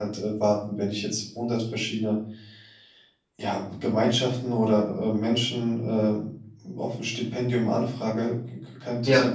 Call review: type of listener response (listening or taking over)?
listening